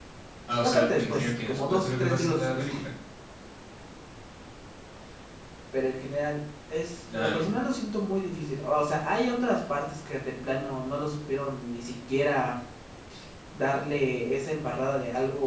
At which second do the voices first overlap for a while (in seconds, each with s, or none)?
0.6 s